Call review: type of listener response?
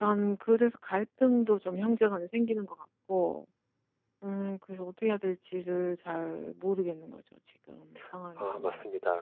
taking over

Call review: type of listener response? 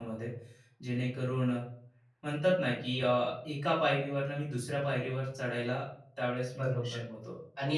taking over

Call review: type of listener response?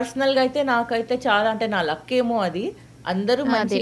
listening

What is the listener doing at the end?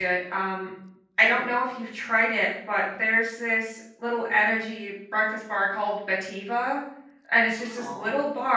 listening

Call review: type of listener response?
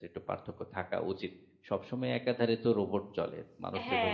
taking over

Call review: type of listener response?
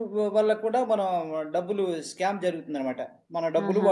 listening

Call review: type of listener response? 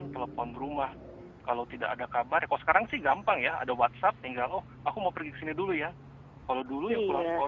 listening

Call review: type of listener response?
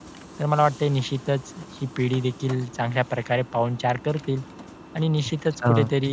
listening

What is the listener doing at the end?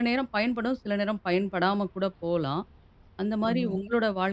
listening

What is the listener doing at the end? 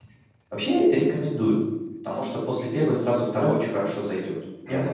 taking over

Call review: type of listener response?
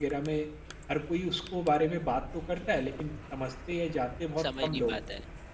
taking over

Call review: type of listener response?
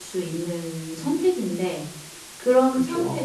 listening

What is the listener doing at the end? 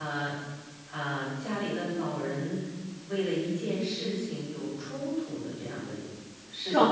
taking over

